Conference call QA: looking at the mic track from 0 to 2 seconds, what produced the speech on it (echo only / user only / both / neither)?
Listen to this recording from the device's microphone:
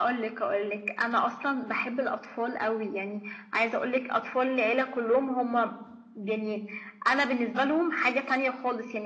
echo only